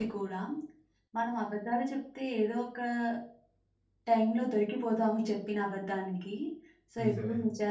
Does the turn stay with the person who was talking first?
Yes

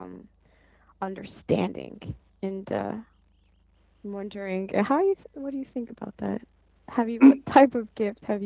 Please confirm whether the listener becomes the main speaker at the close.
No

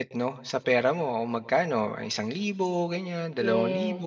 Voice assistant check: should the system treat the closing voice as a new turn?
Yes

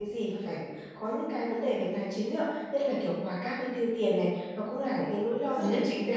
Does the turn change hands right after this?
No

